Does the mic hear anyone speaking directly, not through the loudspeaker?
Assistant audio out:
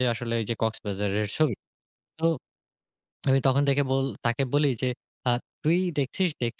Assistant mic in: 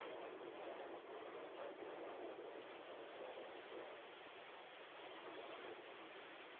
No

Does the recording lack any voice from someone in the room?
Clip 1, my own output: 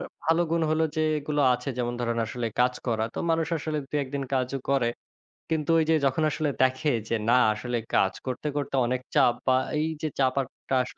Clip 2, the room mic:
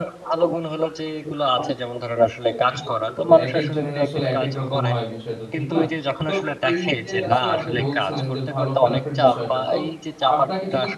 No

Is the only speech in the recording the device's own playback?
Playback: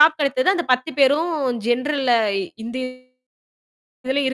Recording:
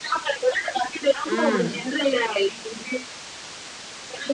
No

